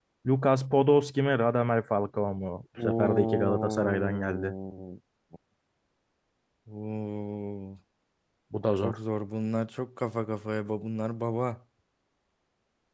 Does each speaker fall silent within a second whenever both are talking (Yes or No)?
No